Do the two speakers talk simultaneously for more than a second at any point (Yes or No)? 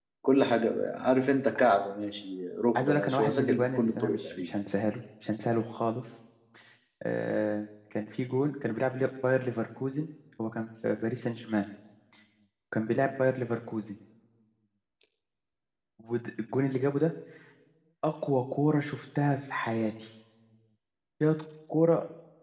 Yes